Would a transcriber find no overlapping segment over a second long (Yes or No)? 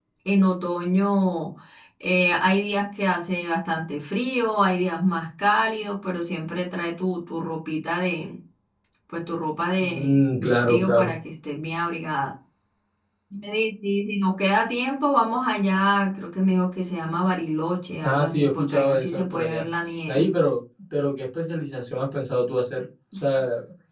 No